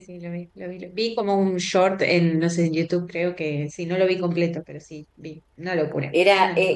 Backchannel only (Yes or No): No